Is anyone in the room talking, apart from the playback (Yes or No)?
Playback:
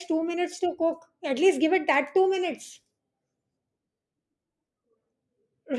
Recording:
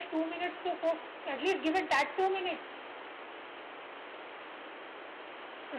No